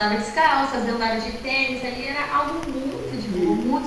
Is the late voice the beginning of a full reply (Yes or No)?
Yes